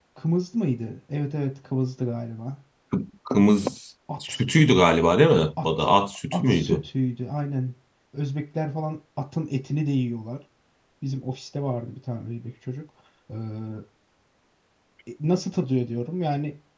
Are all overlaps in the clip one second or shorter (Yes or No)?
Yes